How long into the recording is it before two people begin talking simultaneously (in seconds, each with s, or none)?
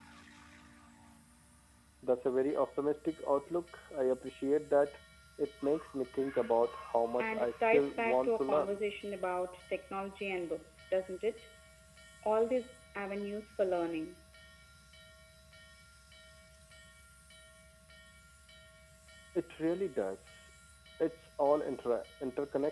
7.2 s